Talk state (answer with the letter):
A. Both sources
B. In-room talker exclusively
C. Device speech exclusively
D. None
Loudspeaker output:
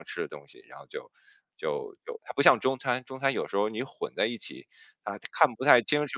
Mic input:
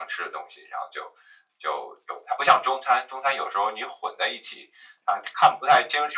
C